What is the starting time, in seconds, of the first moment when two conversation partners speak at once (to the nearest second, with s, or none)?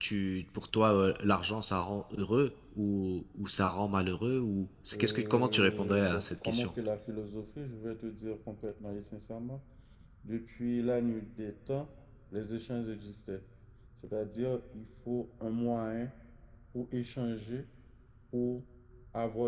5 s